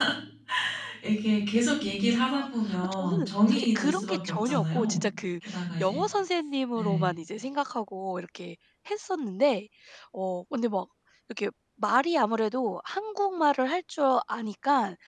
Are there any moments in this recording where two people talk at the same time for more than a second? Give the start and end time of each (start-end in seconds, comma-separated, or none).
2.2-5.0